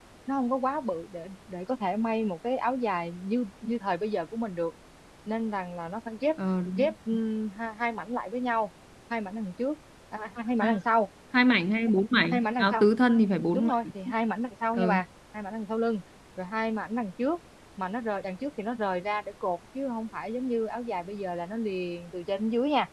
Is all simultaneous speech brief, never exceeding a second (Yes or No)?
Yes